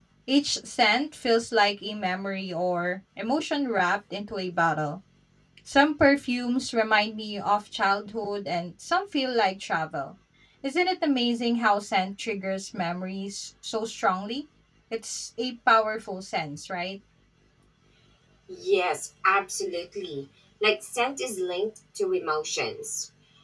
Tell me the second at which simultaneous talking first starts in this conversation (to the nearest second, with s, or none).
none